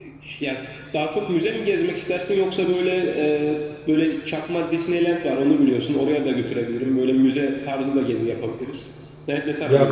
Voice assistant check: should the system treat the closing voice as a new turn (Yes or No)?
Yes